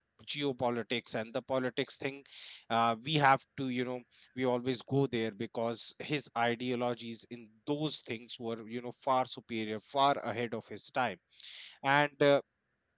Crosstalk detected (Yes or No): No